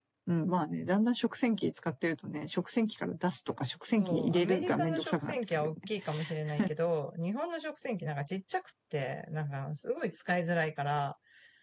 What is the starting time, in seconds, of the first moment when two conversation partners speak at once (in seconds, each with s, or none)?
4.0 s